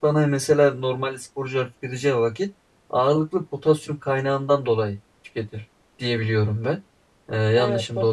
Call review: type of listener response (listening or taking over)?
taking over